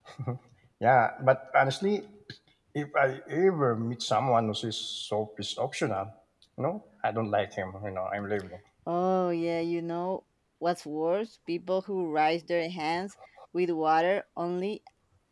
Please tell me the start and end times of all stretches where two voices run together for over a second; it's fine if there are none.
none

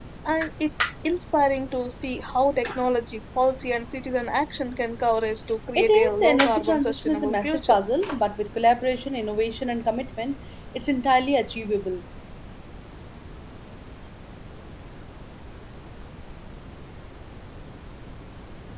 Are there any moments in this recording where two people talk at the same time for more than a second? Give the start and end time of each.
5.8-7.8

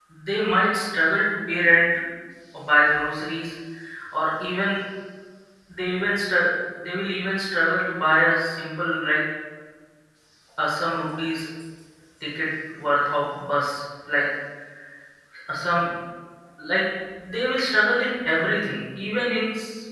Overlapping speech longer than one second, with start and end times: none

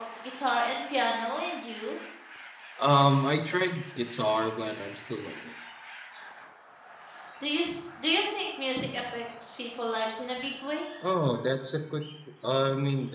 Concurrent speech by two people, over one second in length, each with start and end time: none

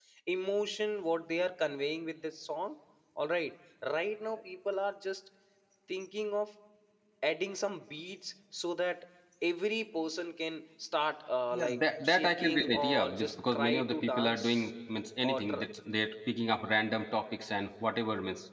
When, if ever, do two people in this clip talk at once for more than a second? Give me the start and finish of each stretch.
11.5-14.7

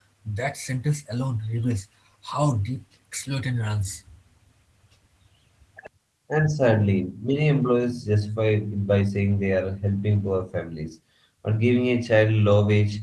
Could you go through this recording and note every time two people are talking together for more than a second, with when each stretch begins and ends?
none

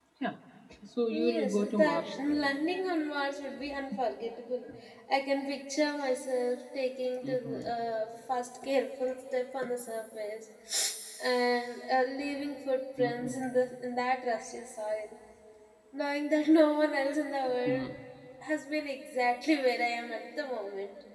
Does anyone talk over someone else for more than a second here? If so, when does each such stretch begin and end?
1.1-2.5

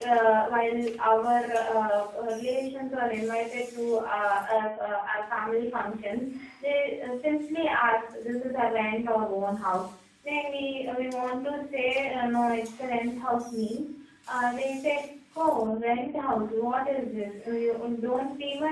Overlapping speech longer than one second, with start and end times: none

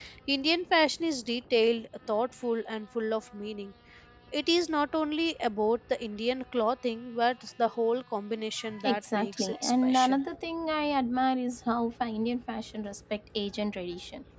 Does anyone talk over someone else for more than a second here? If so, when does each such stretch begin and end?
8.8-10.2

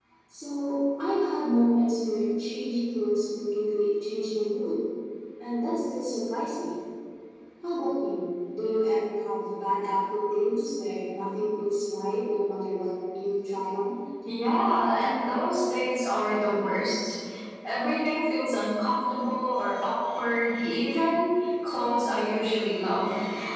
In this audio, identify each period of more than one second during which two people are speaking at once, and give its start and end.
none

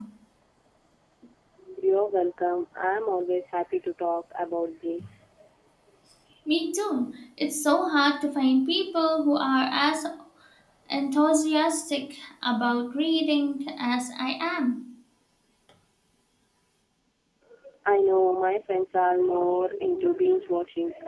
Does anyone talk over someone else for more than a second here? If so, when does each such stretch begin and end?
none

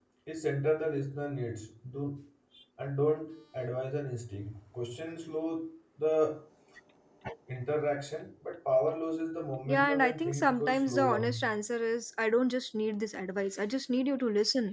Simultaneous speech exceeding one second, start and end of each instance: 9.7-11.4

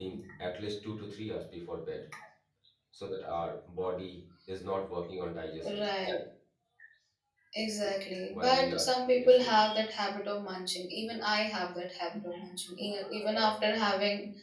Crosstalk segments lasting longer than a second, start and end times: 8.3-9.6

